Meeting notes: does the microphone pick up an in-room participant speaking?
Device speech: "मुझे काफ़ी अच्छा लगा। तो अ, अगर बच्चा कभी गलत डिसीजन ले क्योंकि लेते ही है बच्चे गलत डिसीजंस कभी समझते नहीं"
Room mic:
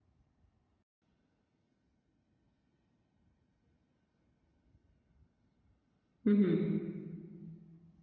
Yes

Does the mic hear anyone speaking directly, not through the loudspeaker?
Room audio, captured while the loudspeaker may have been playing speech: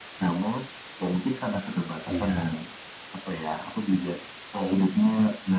Yes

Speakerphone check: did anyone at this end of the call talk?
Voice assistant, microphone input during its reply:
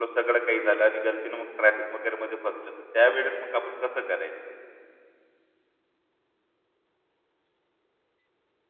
Yes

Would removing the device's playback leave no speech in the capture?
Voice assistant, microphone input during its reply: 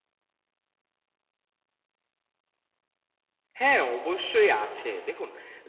No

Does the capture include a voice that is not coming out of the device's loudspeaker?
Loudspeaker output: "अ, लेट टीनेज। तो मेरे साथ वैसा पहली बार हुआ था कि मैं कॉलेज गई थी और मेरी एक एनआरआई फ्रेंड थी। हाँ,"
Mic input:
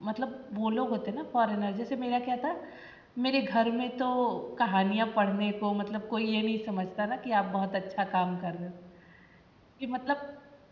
Yes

